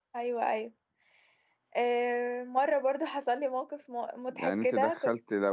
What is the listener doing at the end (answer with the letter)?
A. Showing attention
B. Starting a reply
B